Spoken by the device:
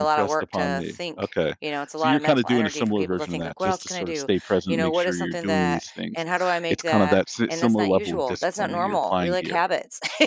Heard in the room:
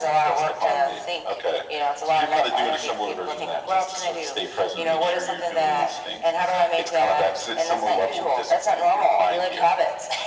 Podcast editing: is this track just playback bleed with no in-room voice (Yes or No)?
Yes